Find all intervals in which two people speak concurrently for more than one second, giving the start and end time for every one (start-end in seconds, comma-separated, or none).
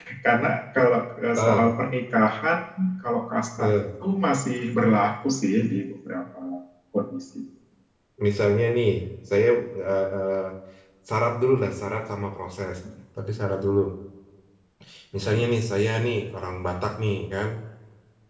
none